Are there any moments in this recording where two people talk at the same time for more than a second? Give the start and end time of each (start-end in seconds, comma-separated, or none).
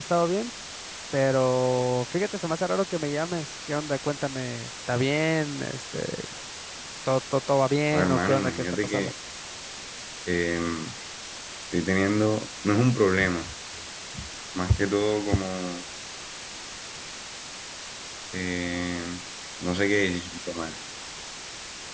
7.9-9.1